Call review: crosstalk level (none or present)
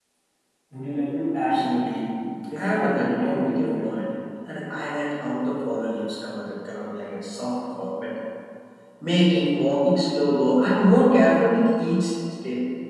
present